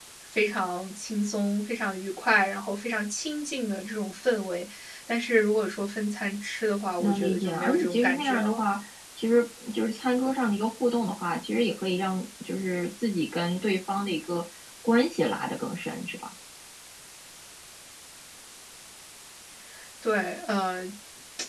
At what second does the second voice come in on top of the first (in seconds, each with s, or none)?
7.0 s